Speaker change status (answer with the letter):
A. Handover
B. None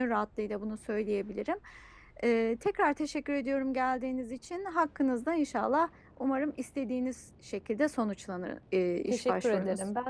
A